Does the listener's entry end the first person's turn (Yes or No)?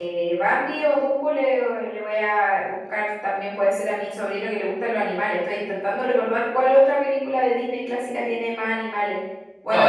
Yes